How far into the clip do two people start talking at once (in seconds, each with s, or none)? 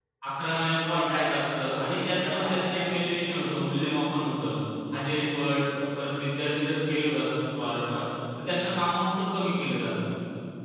0.8 s